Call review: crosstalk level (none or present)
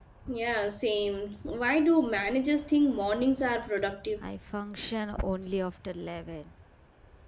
none